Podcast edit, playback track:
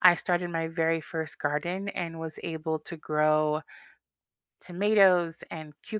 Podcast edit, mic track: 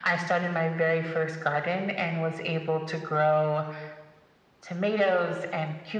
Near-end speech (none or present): none